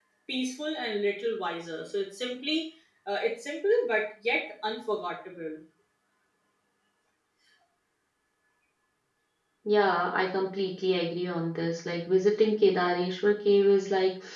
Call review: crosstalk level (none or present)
none